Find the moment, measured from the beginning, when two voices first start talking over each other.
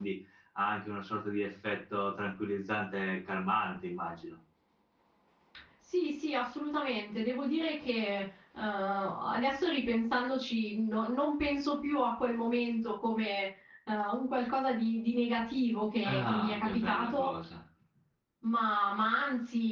16.0 s

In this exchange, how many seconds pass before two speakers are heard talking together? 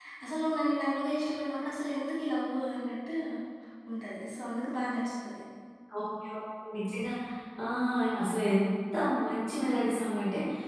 none

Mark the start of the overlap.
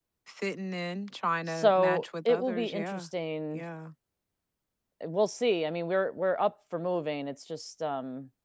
1.5 s

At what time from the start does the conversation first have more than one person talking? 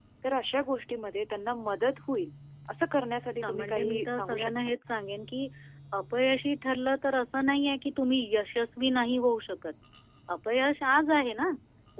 3.4 s

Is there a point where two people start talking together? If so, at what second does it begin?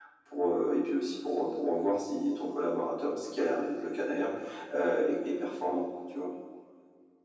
none

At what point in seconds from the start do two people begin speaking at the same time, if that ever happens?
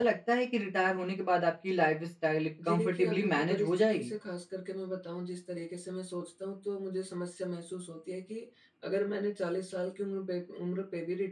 2.6 s

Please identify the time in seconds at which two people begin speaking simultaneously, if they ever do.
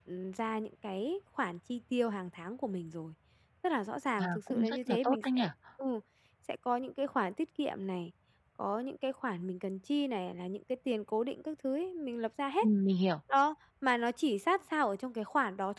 4.2 s

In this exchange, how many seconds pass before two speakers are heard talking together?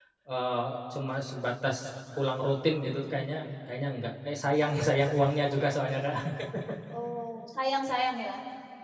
none

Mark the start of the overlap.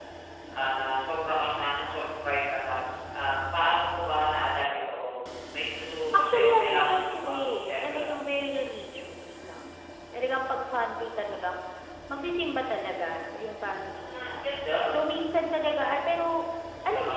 6.1 s

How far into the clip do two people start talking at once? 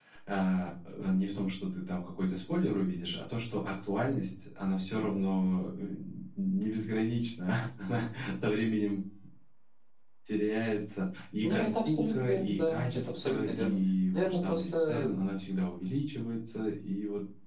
11.4 s

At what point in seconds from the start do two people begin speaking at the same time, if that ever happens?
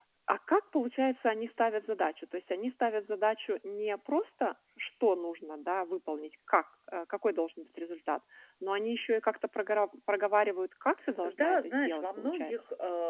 11.2 s

